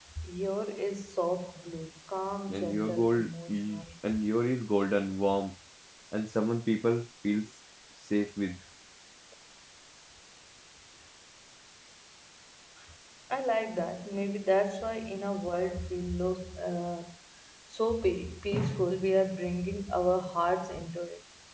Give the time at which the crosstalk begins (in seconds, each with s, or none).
2.5 s